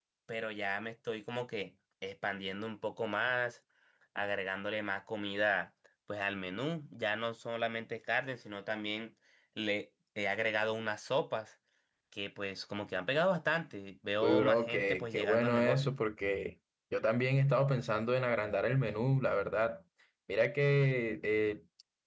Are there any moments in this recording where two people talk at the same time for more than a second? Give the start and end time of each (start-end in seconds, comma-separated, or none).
14.2-15.9